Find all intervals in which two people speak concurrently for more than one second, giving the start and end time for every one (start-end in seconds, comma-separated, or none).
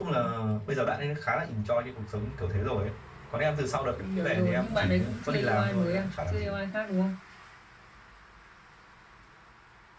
4.0-6.6